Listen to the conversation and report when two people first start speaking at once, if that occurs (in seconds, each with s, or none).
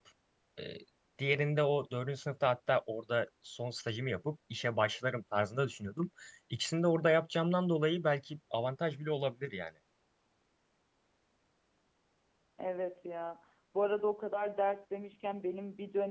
none